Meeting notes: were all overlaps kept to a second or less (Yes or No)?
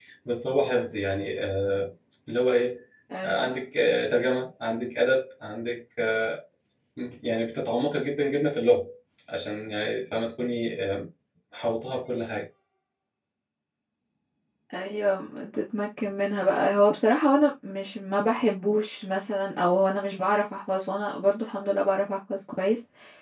Yes